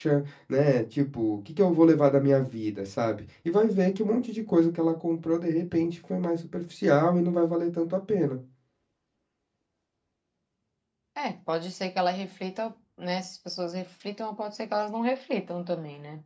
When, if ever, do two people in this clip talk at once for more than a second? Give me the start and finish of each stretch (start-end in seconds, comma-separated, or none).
none